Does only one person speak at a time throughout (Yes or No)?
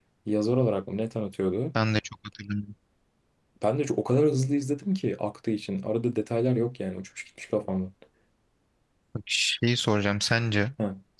Yes